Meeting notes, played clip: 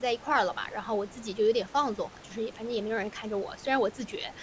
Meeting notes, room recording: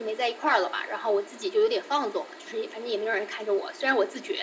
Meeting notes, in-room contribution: none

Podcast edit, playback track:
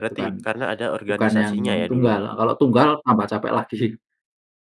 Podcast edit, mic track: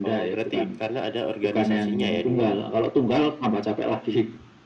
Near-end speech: none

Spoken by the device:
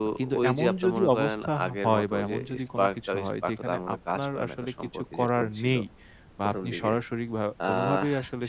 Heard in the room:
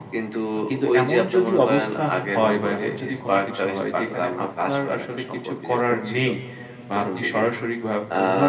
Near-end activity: none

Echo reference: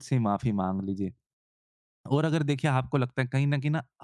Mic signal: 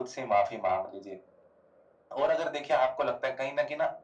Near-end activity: none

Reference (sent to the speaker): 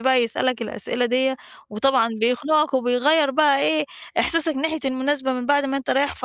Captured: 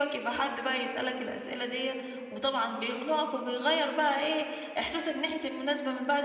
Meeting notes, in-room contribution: none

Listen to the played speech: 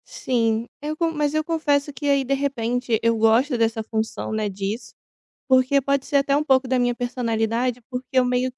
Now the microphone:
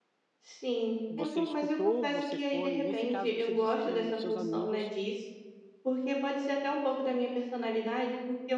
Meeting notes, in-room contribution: present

